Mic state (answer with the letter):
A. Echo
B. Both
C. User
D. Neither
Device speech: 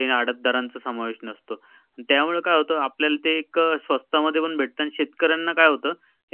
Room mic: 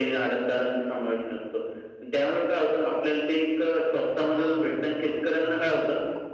B